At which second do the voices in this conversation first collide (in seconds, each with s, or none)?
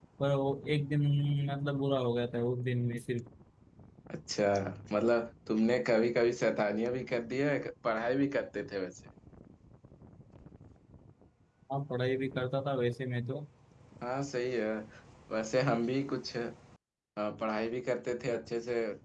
none